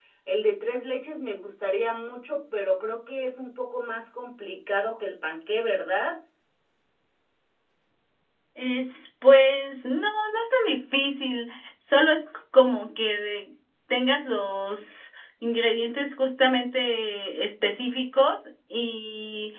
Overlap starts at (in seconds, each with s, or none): none